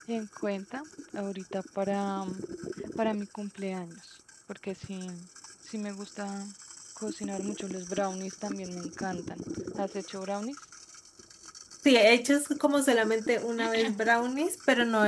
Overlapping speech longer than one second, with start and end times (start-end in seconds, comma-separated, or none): none